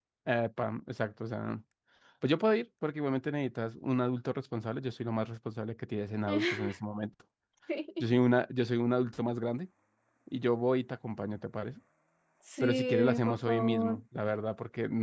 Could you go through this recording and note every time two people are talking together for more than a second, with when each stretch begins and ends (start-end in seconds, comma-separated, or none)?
12.6-14.0